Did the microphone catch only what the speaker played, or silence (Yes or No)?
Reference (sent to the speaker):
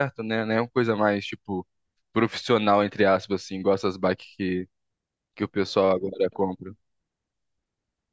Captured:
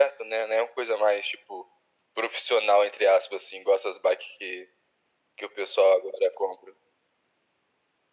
Yes